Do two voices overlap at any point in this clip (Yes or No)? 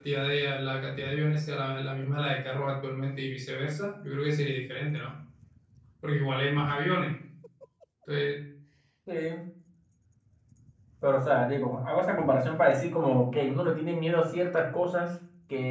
No